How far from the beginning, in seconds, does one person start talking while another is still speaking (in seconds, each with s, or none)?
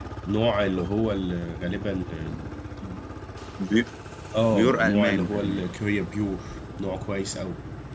4.5 s